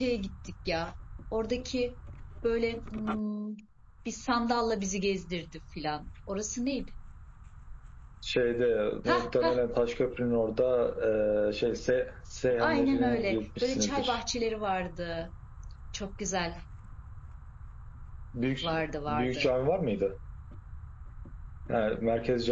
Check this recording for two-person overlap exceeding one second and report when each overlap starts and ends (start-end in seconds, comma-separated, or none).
12.6-14.2